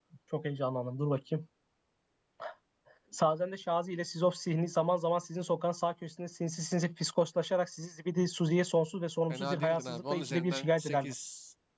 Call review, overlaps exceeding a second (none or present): present